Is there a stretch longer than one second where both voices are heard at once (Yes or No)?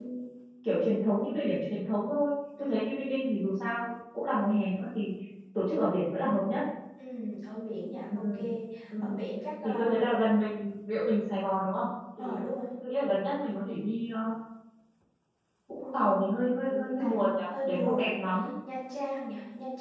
Yes